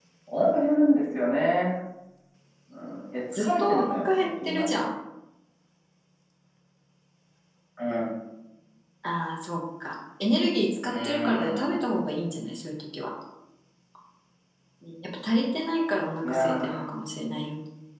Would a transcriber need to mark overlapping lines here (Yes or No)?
Yes